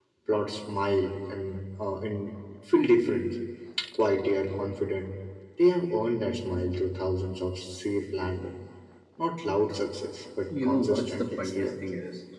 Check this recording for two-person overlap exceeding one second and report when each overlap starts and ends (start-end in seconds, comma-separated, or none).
10.5-11.7